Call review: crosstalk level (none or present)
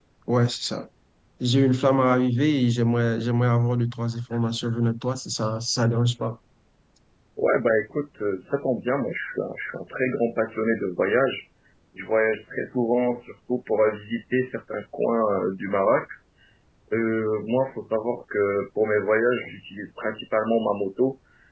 none